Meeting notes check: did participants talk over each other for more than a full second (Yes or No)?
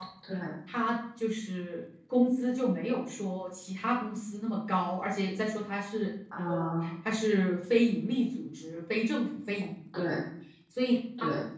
No